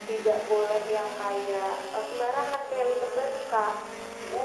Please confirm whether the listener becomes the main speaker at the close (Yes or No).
Yes